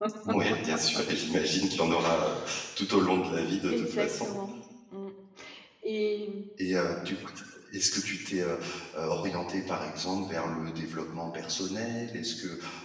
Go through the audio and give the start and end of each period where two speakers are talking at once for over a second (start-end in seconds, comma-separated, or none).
none